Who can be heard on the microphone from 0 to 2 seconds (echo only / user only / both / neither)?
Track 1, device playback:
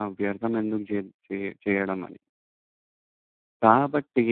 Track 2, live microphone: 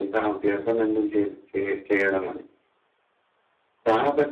echo only